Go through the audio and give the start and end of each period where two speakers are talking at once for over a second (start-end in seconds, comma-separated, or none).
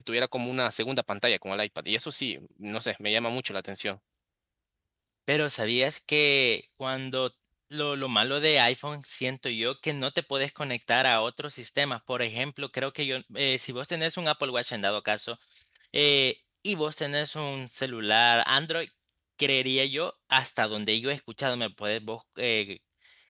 none